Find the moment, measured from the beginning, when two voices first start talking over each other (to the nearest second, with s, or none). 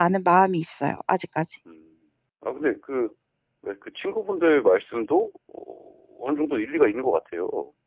none